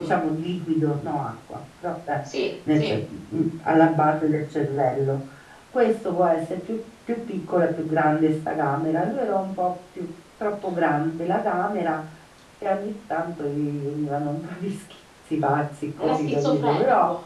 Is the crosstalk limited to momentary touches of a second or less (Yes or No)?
No